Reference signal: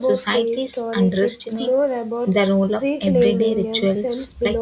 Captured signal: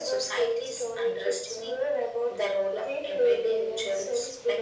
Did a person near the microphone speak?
No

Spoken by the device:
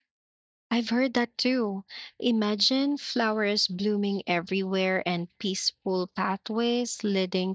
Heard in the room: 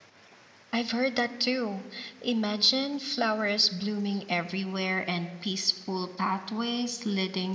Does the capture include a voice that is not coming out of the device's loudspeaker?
No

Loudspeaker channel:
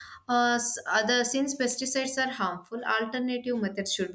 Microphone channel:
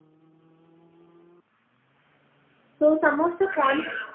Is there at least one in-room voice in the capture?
Yes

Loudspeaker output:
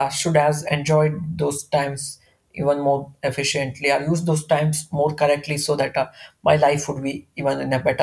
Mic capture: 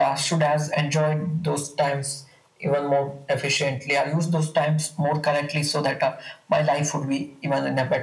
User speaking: No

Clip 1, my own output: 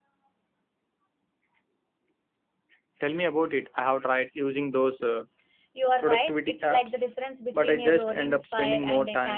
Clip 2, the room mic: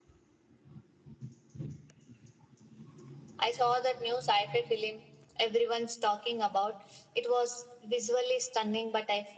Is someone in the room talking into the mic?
Yes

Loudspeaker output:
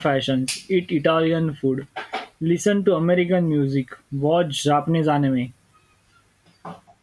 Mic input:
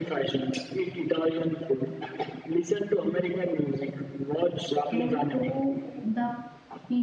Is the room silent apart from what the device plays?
No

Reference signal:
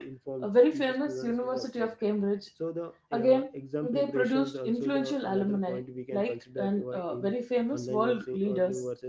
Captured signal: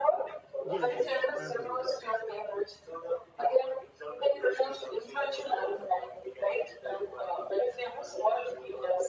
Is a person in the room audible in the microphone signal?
Yes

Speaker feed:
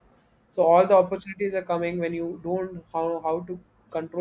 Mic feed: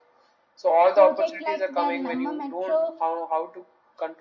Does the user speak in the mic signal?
Yes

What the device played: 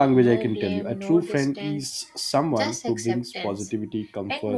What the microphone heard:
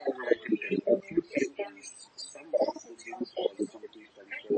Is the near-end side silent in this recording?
Yes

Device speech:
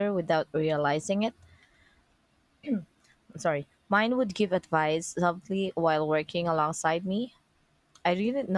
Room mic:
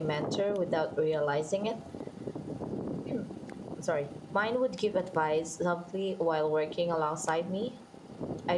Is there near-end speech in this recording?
No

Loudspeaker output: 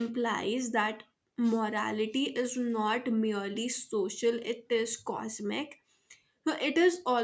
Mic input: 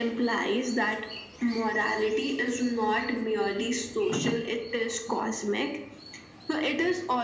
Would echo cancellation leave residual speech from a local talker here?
No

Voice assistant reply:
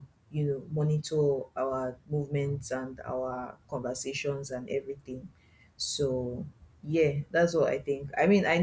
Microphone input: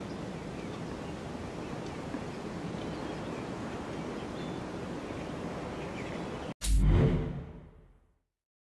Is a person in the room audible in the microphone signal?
No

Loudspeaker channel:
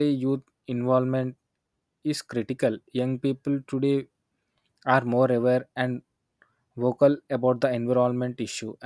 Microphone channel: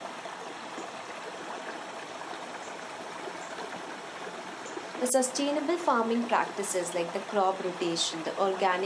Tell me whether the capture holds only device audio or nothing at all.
No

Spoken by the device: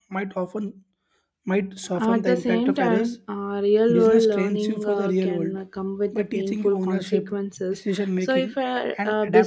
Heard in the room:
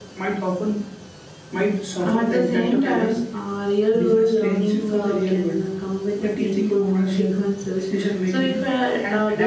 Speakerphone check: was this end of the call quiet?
Yes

